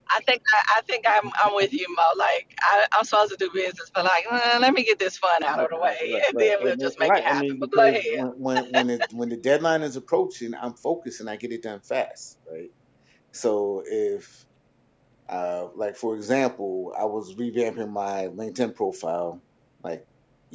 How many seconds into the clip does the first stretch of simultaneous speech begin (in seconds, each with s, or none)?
5.5 s